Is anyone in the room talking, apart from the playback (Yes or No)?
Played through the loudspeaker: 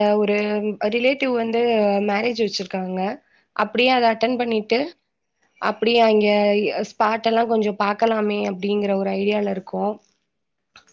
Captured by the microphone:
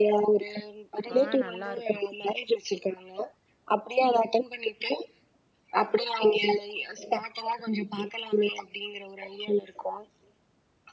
Yes